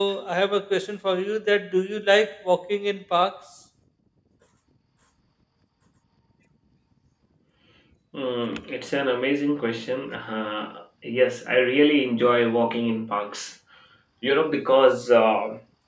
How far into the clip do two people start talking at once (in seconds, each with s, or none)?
none